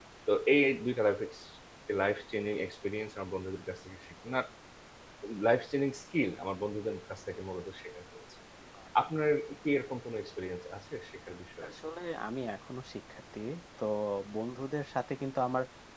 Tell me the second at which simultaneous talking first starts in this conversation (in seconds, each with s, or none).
none